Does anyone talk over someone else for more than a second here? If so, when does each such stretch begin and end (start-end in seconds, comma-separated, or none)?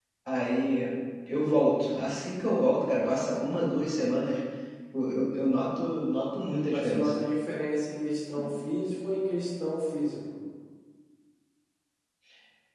none